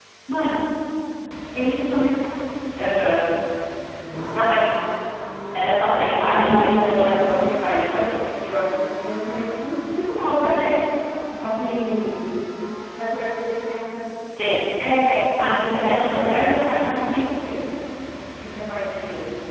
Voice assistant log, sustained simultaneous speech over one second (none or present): present